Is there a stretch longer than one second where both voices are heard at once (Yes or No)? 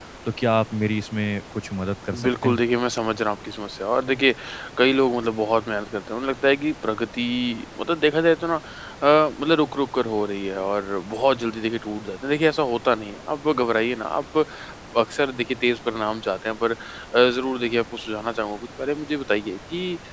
No